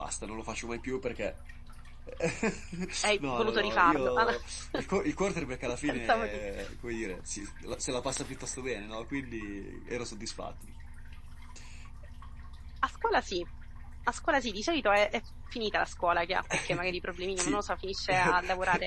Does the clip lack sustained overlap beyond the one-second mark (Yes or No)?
No